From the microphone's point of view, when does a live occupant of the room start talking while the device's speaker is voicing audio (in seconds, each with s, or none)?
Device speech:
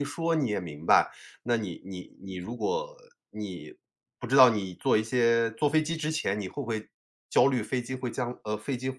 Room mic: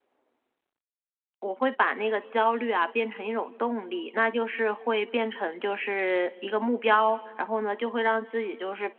1.4 s